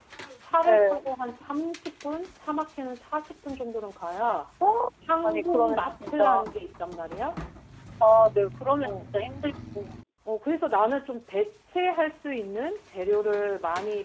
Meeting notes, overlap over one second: present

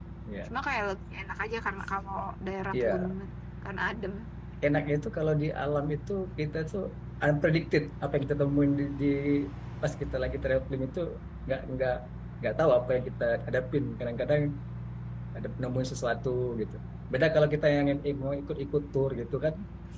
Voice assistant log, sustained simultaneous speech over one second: none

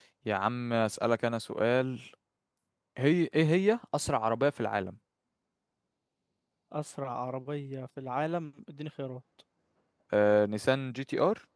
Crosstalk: none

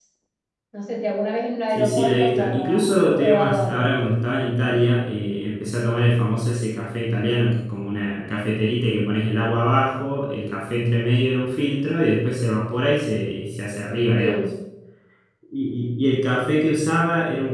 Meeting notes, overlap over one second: present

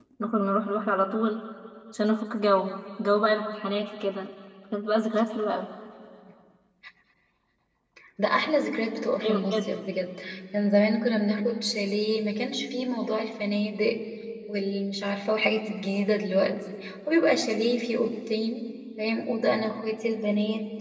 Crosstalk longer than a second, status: none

